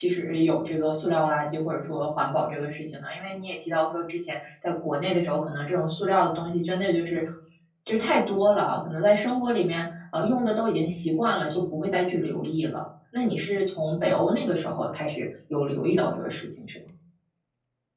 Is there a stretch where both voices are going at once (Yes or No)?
No